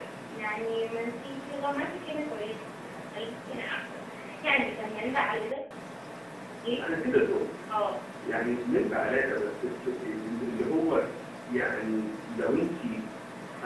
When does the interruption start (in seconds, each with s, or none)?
none